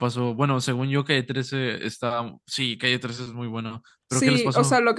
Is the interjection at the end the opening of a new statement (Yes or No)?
Yes